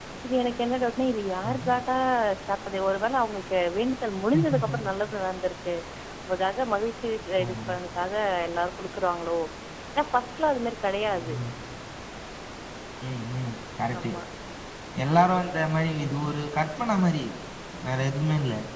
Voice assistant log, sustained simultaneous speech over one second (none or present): none